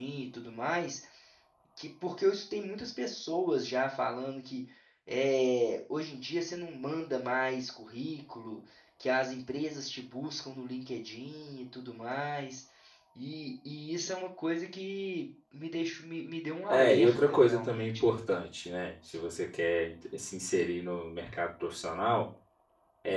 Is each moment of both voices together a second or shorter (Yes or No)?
No